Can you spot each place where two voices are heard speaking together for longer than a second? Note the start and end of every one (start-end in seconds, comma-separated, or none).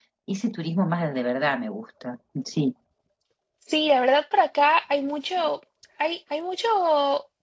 none